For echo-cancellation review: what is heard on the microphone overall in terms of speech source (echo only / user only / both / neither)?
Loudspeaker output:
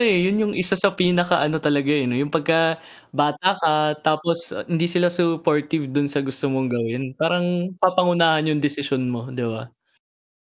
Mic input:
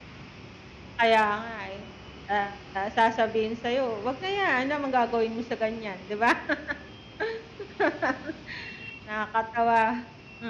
user only